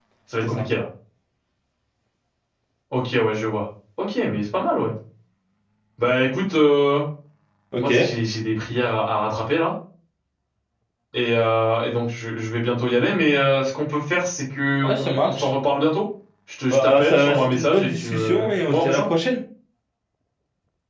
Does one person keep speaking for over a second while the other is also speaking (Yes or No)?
Yes